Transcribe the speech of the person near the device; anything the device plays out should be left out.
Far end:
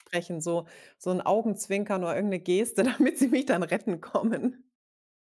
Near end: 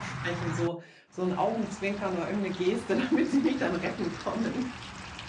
none

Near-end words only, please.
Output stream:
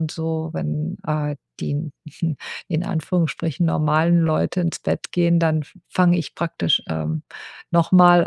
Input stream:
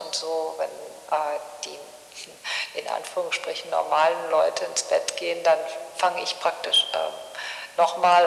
none

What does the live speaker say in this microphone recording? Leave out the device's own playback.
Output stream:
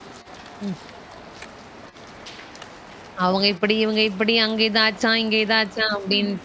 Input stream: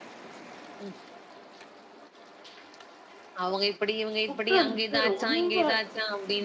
உட்காந்துட்டு ரொம்ப

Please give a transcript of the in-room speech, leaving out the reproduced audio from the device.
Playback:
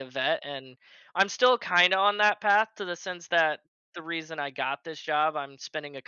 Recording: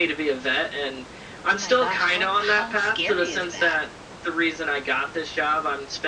Oh my gosh, how how scary is that?

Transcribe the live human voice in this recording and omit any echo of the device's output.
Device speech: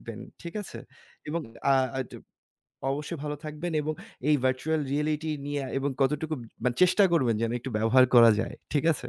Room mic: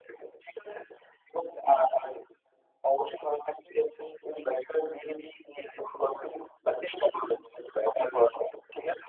none

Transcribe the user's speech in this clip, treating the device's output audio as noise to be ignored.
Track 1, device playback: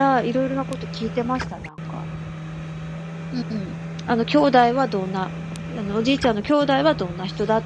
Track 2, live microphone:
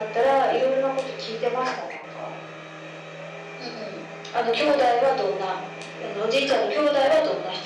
none

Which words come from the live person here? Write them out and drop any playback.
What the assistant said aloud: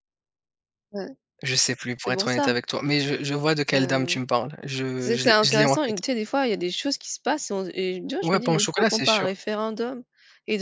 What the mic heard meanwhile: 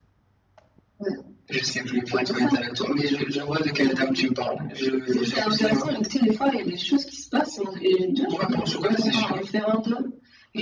none

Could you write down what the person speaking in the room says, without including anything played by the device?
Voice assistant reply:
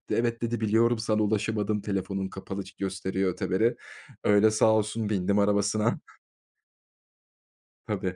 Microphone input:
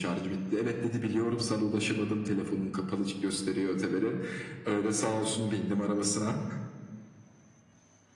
none

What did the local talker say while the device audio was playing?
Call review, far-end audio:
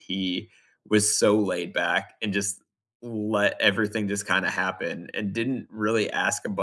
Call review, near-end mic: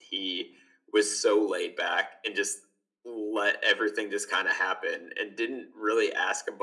none

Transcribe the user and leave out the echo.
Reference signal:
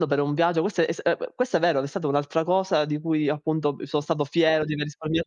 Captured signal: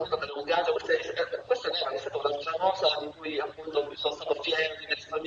none

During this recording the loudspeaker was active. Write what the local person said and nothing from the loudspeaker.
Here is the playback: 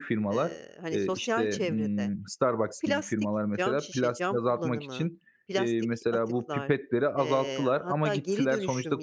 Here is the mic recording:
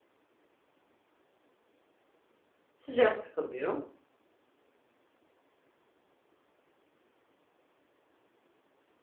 Sıcak da kalıyor.

